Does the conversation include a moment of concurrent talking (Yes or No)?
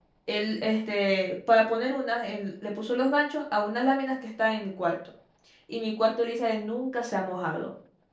No